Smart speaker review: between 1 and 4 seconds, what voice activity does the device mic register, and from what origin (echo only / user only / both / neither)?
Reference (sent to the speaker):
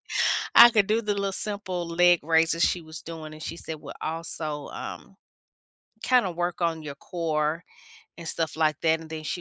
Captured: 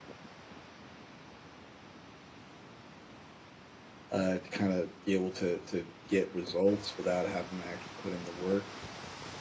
neither